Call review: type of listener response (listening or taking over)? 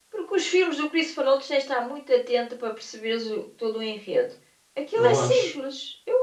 listening